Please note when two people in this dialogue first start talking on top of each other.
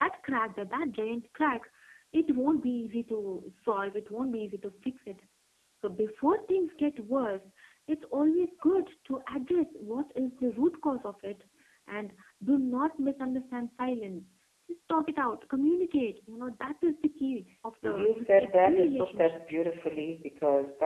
17.8 s

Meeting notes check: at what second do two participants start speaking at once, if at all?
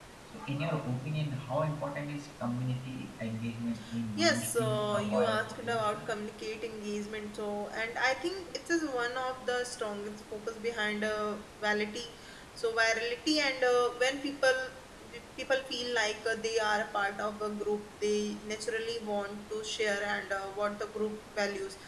4.2 s

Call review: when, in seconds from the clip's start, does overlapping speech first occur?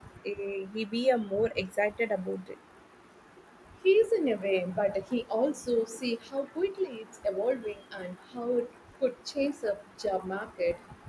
none

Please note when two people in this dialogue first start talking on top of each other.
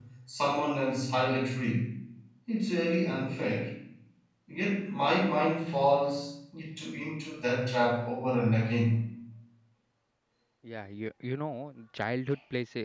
none

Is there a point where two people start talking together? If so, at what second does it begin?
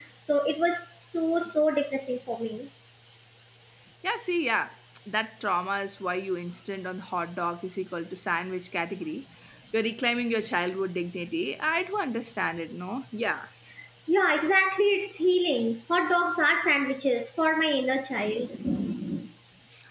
none

